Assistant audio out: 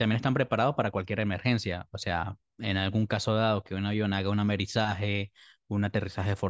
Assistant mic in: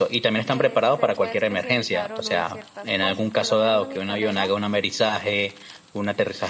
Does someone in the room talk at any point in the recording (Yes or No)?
Yes